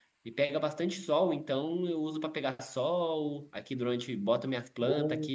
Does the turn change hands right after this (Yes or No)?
No